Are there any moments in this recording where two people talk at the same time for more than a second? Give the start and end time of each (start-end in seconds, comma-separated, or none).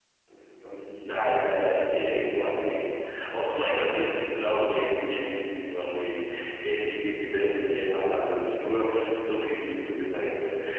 1.0-2.5